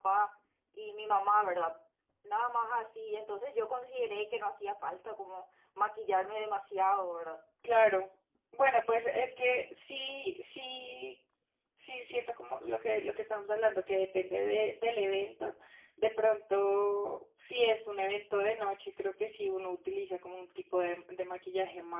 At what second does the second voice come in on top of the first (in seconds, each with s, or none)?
none